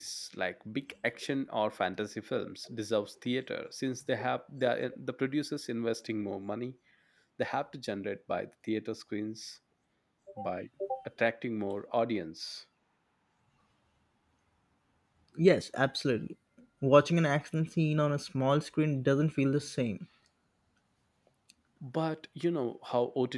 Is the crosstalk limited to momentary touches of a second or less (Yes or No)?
Yes